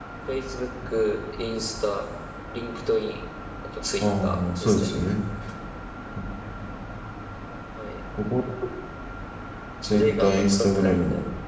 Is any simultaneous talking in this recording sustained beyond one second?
Yes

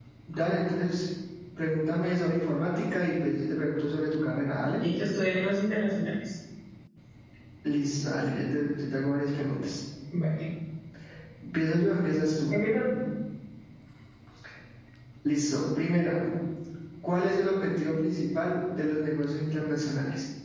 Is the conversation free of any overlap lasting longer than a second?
Yes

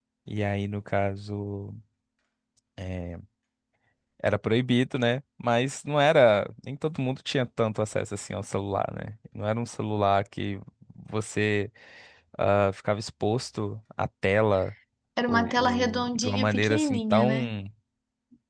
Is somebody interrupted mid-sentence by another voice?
Yes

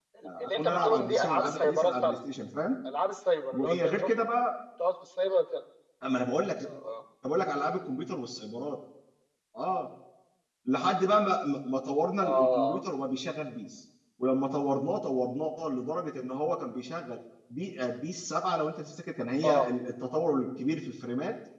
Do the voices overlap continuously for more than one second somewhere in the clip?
Yes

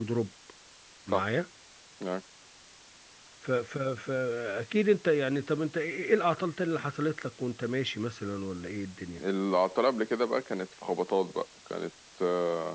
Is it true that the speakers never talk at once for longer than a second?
Yes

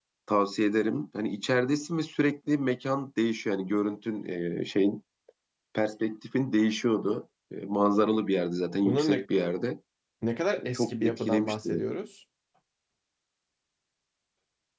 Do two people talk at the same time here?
Yes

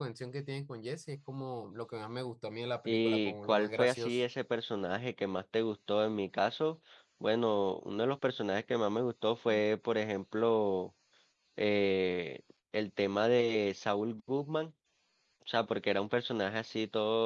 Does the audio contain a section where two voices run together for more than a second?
Yes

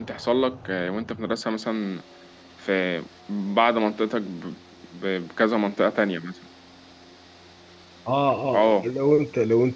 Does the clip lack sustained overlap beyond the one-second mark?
Yes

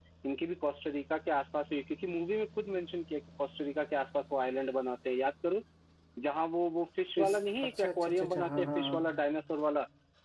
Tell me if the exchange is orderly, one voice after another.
No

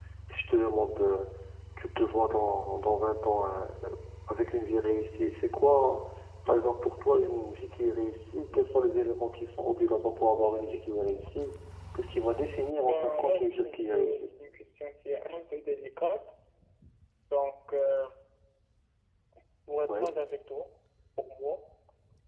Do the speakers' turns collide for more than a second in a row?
Yes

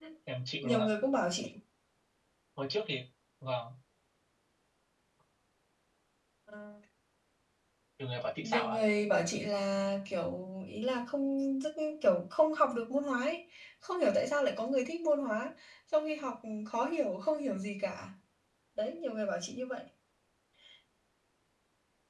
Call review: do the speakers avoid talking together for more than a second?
Yes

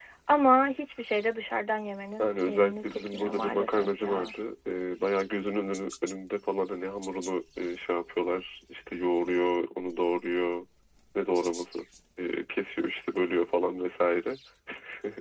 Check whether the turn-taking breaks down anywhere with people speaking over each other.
Yes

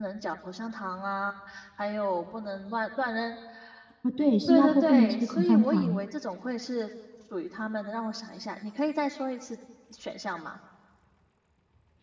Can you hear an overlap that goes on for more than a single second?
Yes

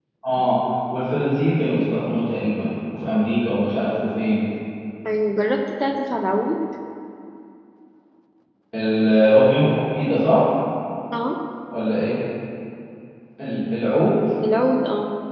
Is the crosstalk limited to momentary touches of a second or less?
Yes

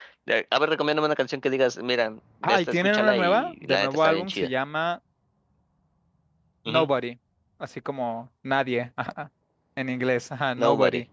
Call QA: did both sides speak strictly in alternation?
No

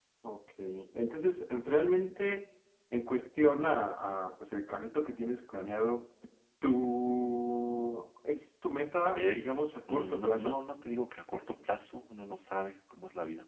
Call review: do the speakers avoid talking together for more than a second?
No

